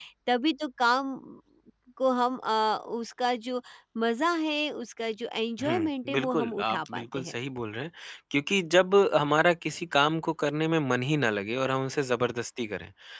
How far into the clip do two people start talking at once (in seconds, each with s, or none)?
5.6 s